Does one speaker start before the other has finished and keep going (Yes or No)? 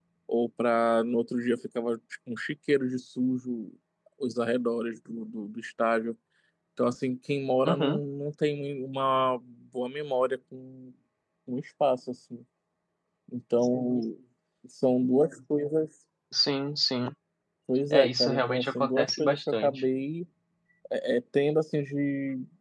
Yes